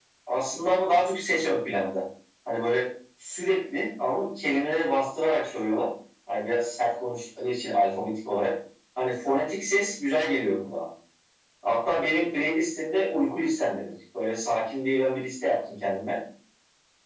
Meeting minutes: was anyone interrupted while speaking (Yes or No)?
No